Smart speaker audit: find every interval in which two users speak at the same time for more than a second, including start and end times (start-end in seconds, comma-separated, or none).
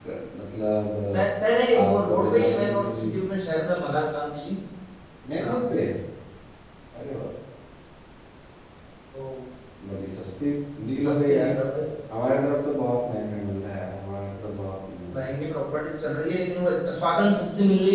1.7-3.1